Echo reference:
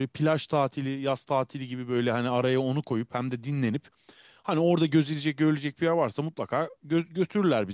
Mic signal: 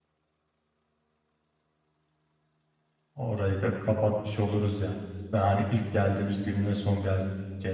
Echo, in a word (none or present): none